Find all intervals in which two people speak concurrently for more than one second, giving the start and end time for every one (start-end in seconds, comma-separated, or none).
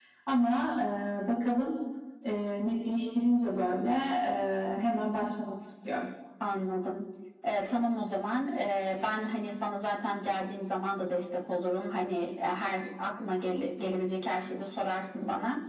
none